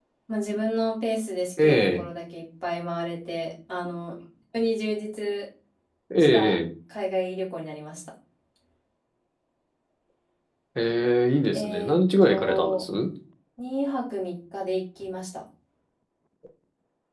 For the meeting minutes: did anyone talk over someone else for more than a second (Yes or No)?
Yes